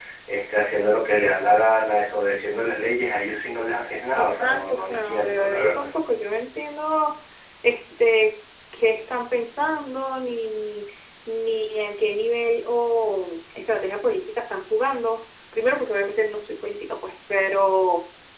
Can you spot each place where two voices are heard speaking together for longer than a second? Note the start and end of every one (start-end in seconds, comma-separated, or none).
4.2-5.9